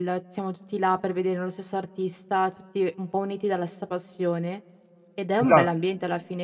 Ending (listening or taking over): listening